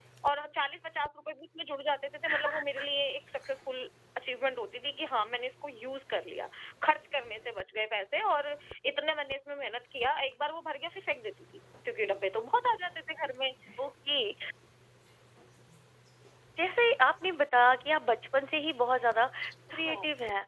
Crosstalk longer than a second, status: none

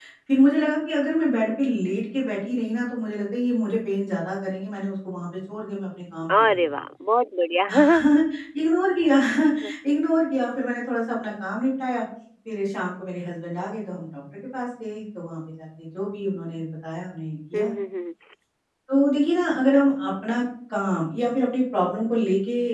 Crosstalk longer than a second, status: none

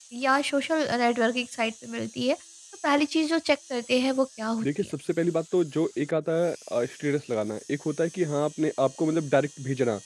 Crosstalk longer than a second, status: none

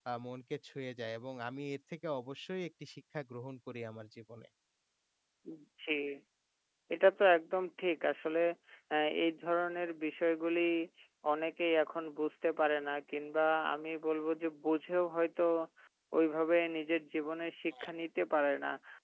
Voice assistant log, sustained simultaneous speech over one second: none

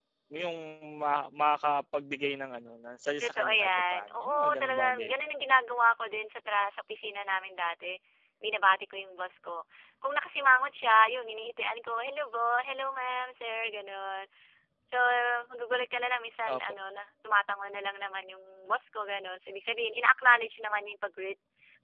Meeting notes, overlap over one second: present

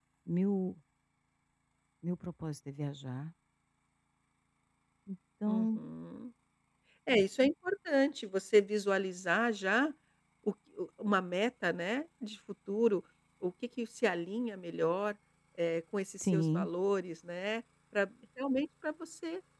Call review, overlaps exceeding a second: none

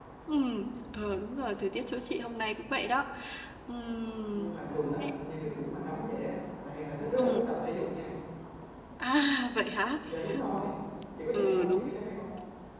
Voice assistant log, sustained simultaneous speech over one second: none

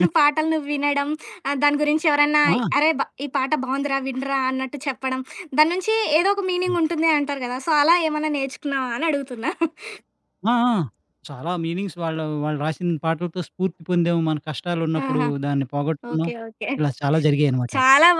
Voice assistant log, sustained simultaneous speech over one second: none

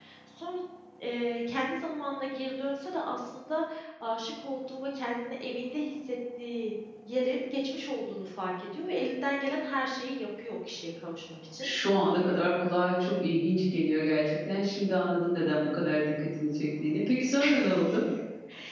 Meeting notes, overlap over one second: none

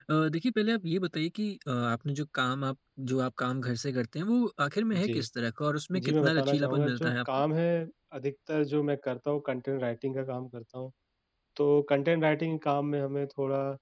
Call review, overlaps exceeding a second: present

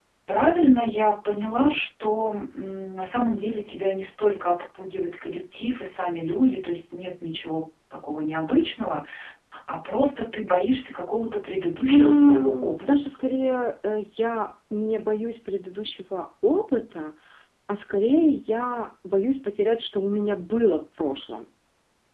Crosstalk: present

